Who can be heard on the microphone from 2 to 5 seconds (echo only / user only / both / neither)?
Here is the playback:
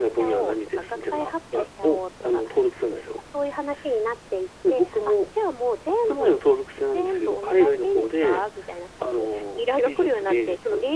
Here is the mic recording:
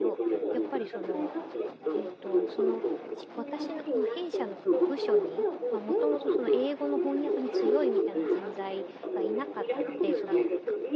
both